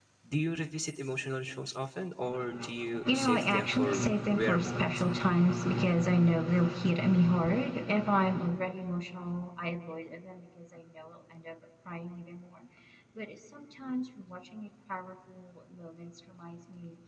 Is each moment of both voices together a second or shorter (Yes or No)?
No